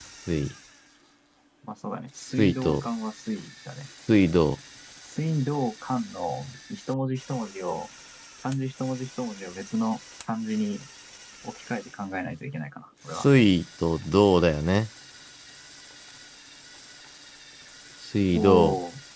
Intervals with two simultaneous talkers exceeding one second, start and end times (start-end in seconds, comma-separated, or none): none